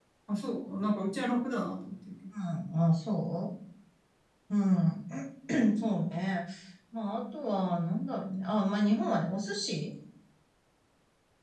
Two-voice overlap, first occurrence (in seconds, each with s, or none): none